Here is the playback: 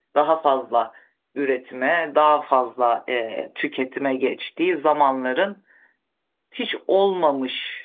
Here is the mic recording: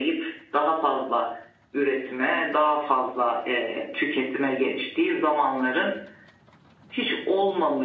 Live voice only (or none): none